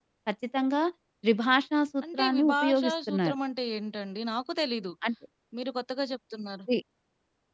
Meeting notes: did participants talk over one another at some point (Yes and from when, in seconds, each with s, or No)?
Yes, from 2.0 s